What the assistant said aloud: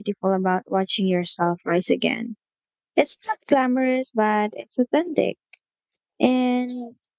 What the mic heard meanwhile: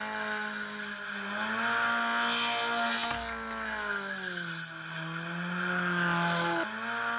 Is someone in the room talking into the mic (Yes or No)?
No